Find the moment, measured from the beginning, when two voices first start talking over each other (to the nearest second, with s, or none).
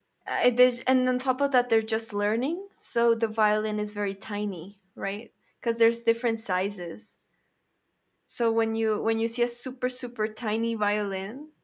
none